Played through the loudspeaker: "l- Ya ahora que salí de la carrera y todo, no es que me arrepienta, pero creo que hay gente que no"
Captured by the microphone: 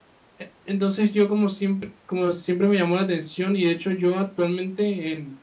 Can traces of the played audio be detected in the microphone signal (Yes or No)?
No